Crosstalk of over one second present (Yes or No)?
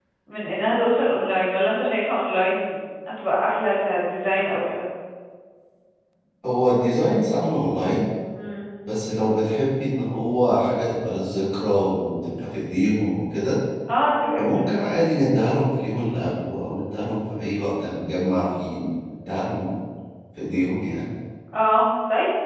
No